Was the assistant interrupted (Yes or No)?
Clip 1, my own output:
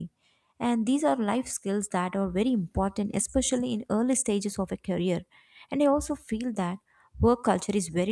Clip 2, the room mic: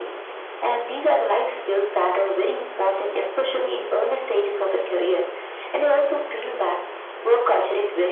No